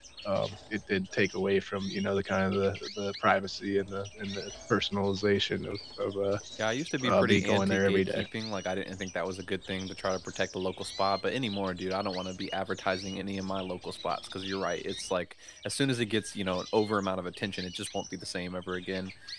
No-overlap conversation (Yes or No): No